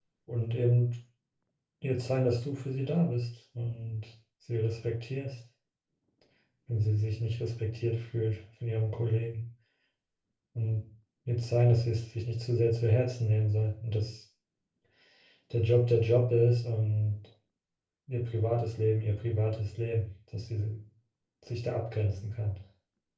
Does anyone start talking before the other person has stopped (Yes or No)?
No